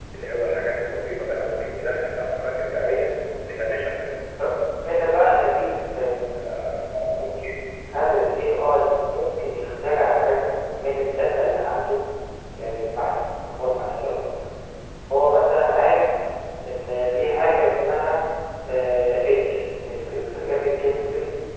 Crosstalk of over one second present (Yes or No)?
No